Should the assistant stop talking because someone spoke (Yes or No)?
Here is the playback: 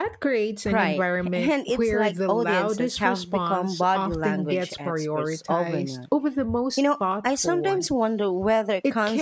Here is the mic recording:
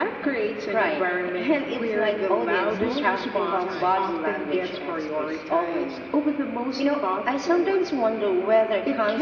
Yes